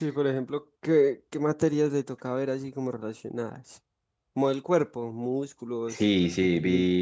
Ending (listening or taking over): taking over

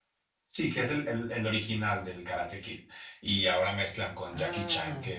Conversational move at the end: listening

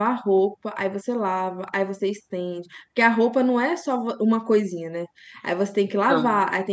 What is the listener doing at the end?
listening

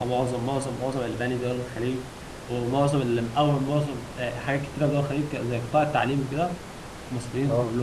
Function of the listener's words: listening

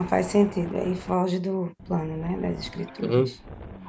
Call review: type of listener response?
taking over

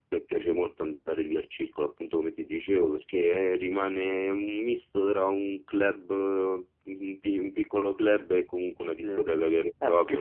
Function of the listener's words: taking over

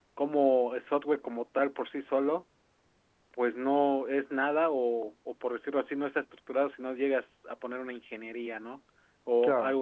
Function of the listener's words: listening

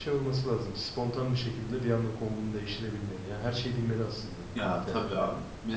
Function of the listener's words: taking over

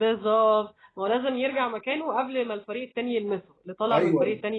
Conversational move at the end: taking over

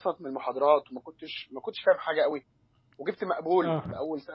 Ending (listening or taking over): listening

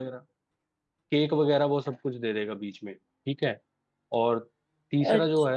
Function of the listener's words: listening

